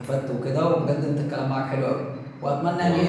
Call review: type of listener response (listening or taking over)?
listening